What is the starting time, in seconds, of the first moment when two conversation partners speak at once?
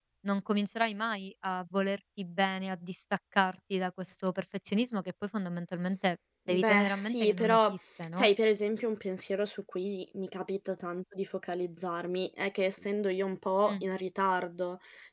6.5 s

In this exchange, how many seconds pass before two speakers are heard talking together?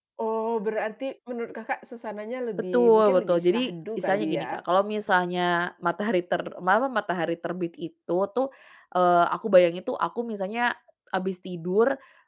2.7 s

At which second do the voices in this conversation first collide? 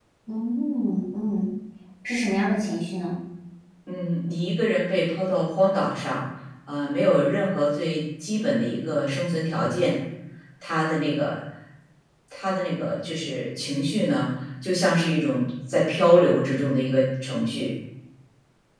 none

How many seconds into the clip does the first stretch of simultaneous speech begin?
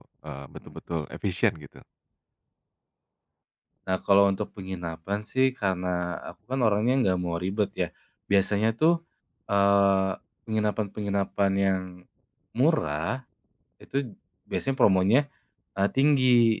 none

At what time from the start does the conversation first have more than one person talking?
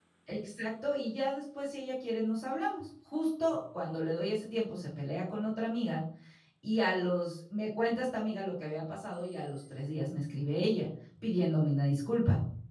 none

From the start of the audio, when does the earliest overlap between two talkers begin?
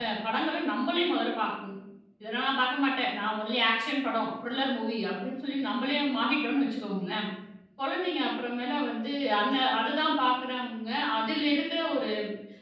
none

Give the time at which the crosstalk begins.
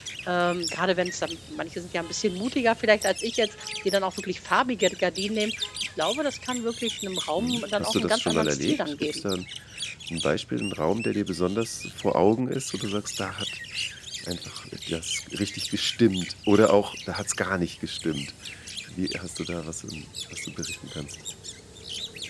7.4 s

